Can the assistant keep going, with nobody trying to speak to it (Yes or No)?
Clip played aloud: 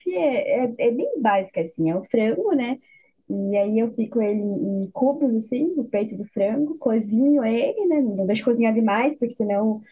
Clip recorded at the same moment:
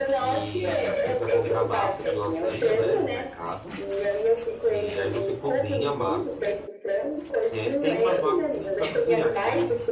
No